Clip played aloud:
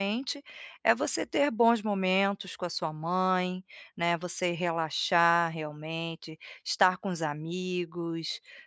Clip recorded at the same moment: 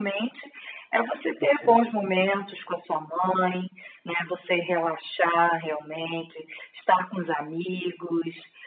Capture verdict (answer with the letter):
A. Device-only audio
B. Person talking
B